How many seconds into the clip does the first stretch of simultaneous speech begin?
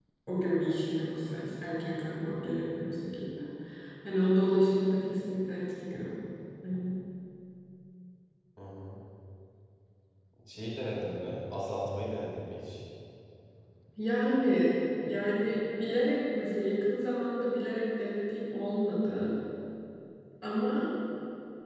none

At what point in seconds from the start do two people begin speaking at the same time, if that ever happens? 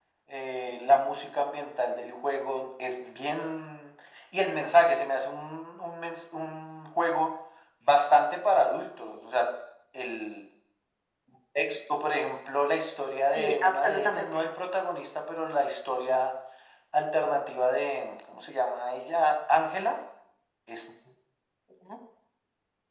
13.2 s

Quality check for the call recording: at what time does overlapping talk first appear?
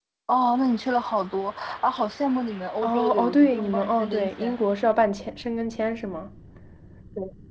2.8 s

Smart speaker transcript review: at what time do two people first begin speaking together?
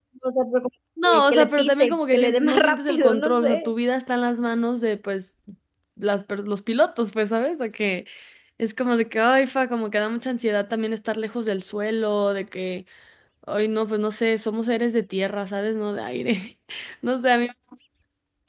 1.0 s

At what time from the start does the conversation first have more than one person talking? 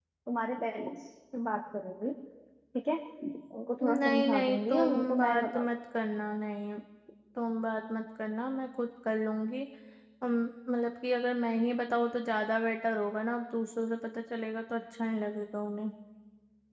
3.8 s

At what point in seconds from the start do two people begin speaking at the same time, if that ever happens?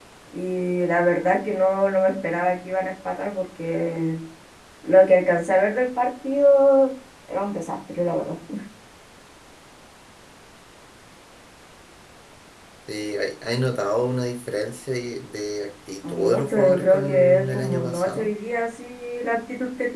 16.0 s

